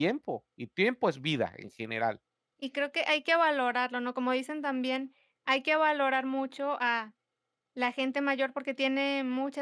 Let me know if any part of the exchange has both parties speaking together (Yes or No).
No